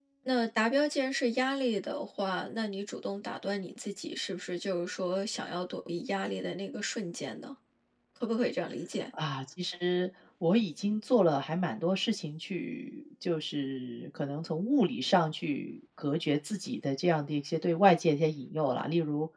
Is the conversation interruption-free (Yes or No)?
Yes